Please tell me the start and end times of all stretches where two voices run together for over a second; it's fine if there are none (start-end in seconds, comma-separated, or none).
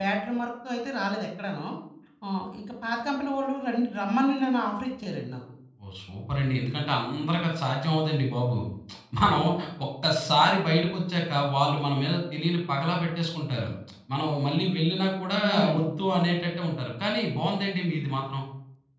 none